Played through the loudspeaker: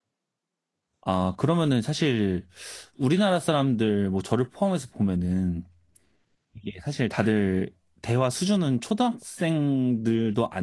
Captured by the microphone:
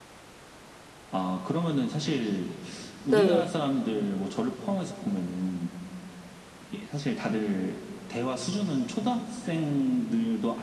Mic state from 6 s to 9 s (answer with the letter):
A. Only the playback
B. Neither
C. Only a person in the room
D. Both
A